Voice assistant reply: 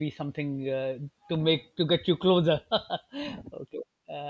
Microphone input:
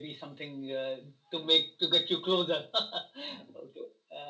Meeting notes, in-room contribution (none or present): none